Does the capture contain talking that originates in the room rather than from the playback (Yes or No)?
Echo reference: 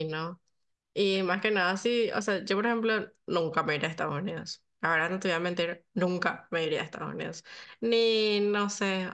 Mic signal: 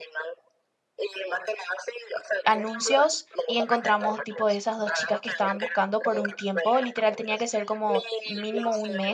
Yes